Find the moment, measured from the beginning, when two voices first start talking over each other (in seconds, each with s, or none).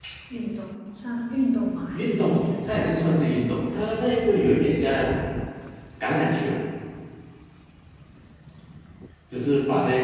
1.9 s